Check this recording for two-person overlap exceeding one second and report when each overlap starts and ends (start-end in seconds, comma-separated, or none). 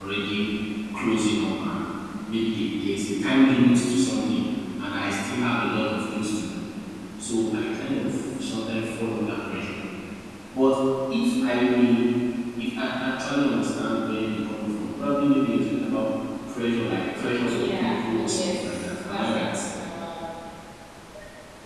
17.5-19.6